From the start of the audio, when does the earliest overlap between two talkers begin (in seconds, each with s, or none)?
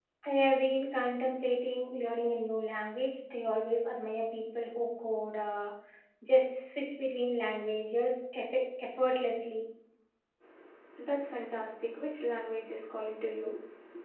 none